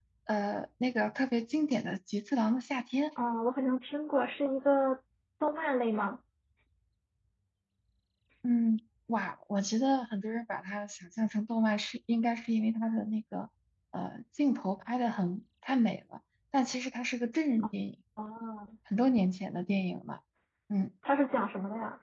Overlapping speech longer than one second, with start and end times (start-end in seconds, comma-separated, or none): none